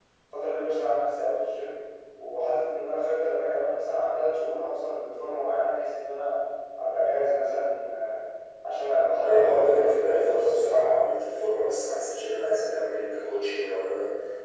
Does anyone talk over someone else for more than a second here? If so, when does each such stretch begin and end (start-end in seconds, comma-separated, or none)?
9.2-10.9